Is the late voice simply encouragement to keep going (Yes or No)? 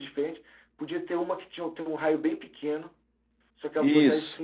Yes